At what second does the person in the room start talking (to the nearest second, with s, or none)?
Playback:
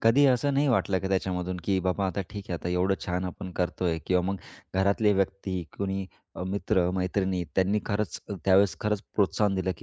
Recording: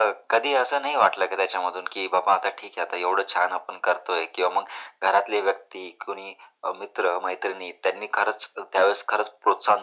none